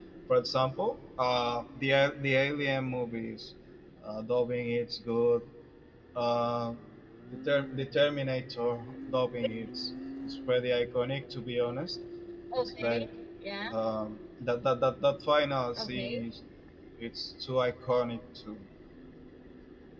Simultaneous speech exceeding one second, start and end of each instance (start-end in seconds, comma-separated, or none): none